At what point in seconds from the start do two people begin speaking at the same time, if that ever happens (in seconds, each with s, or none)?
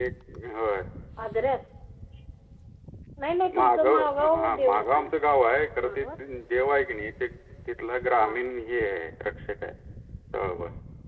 3.6 s